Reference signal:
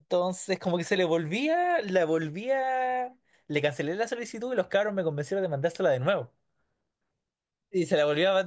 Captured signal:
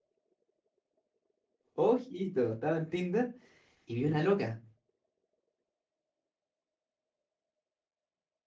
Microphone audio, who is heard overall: user only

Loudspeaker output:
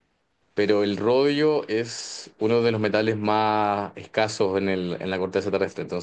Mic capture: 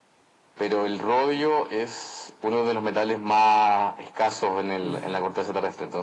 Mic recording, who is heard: both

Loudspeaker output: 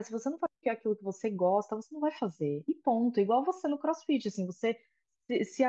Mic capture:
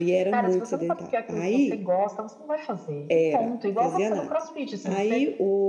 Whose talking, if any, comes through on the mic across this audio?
both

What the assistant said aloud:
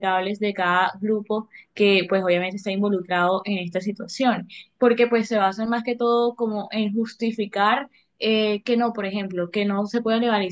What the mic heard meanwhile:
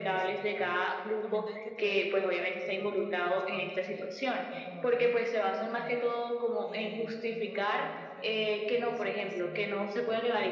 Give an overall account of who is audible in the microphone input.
both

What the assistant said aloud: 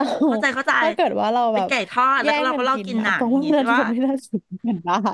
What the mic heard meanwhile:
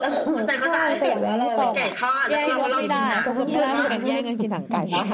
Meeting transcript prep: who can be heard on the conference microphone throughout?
both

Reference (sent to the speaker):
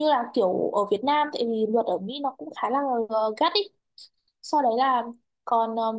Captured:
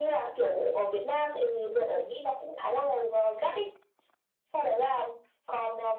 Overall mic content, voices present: echo only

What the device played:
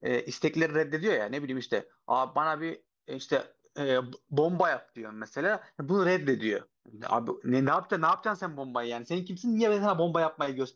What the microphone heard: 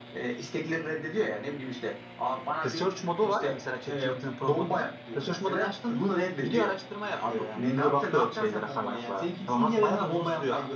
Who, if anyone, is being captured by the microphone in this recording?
both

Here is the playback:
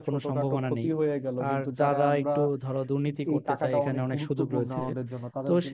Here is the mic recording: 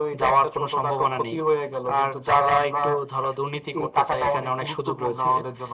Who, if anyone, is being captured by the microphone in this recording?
echo only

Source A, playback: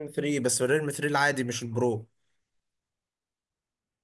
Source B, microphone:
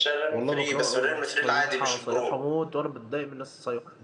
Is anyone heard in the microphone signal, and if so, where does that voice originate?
both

